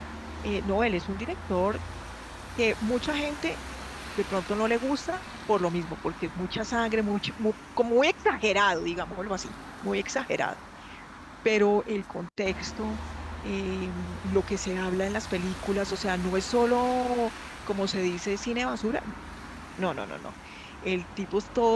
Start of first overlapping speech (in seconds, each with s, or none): none